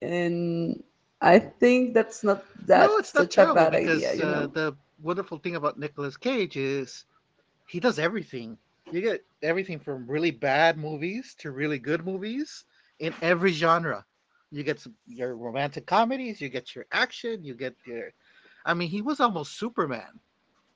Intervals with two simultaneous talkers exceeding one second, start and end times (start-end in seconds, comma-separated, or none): 2.7-4.5